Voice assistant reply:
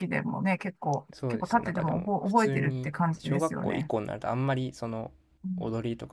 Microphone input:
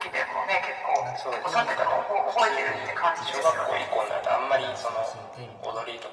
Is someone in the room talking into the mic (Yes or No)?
Yes